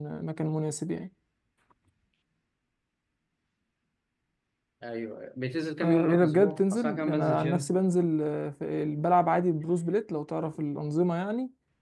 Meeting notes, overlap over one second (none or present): present